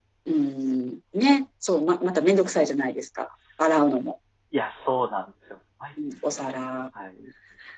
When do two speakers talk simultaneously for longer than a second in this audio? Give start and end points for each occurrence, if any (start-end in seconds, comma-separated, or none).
none